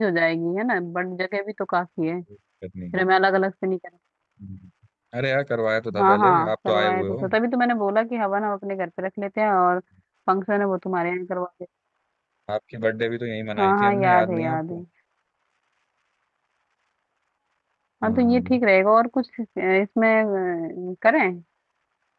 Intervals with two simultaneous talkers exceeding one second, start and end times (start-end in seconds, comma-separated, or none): 6.0-7.3, 13.6-14.8